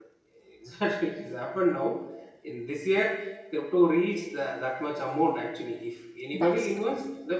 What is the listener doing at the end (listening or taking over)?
listening